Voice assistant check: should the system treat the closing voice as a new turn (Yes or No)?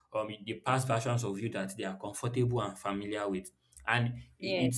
No